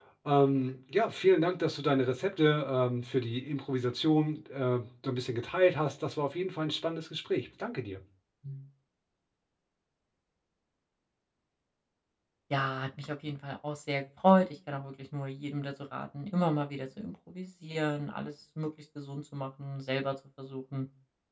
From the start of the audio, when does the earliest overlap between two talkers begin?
none

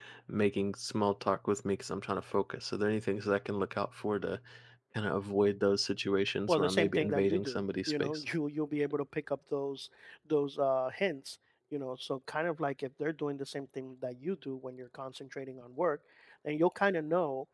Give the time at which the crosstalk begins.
6.3 s

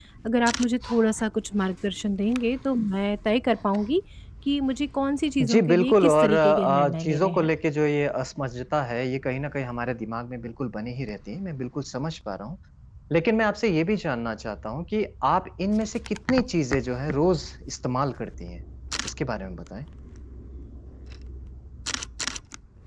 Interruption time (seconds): 5.4 s

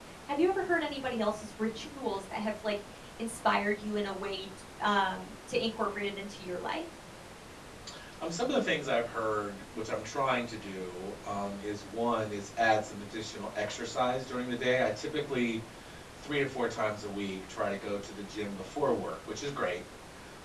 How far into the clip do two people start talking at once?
none

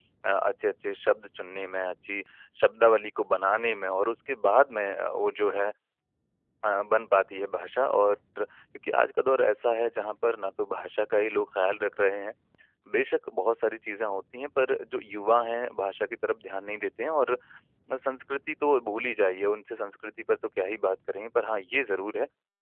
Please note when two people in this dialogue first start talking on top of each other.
none

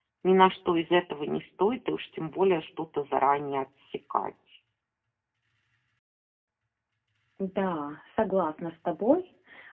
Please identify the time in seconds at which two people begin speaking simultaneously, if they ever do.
none

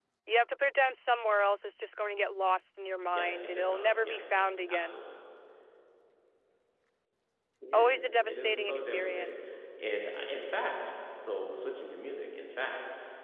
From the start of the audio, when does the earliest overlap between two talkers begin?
3.1 s

